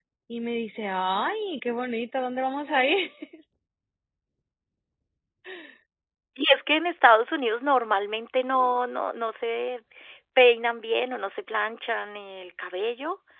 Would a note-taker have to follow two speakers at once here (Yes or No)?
No